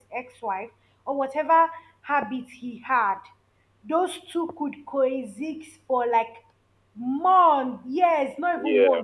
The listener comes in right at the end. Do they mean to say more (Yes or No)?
Yes